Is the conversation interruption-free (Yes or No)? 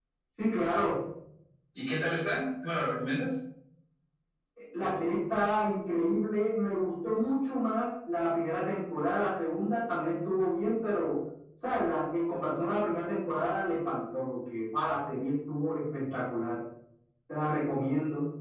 Yes